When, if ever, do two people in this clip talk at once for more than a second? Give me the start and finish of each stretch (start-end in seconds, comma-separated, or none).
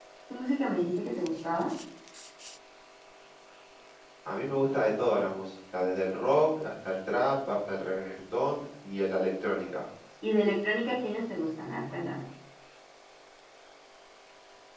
none